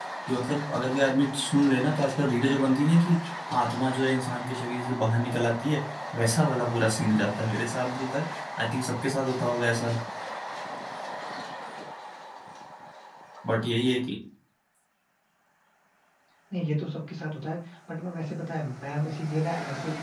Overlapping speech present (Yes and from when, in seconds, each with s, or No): No